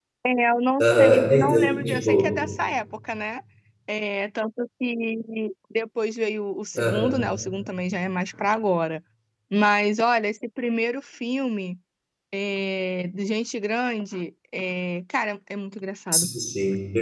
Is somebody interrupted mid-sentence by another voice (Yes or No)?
Yes